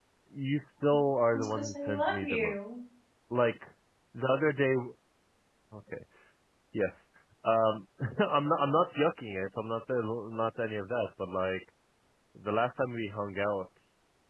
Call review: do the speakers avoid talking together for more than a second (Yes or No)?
No